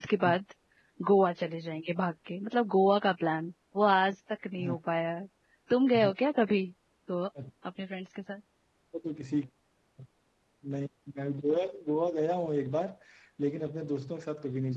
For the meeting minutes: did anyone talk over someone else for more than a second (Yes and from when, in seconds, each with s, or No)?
No